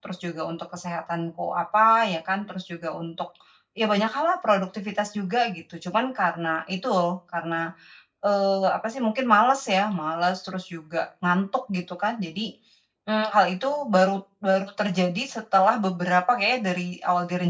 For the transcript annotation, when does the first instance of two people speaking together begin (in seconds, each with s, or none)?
none